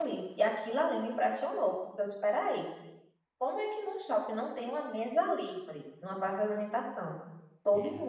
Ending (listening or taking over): listening